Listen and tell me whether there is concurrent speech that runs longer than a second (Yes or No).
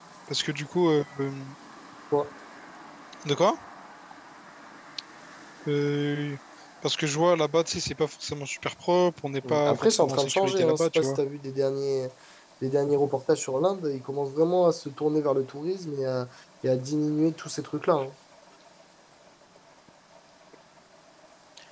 Yes